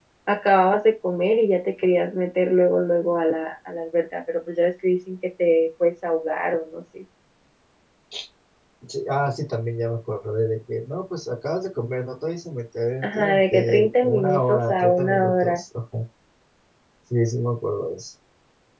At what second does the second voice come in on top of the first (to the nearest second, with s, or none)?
13 s